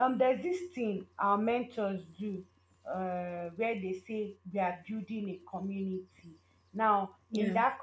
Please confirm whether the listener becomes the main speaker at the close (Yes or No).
No